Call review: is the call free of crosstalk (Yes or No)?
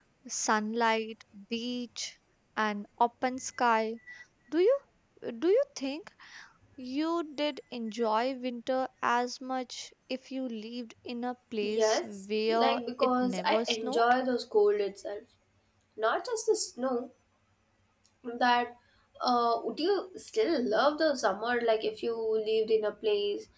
No